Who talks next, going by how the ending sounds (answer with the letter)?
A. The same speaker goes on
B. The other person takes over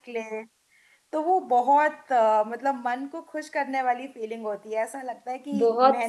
B